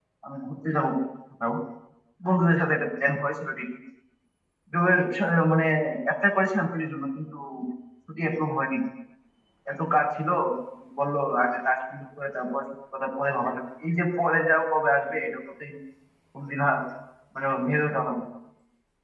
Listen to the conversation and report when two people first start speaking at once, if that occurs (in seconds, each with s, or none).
none